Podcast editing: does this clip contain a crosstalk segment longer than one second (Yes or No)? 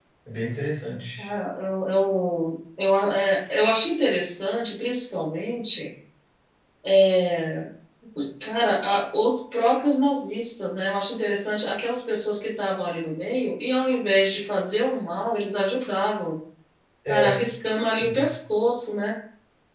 No